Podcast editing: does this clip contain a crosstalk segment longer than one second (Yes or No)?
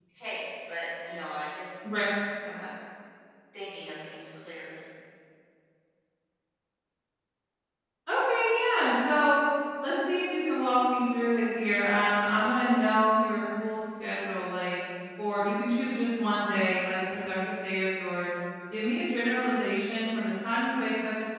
No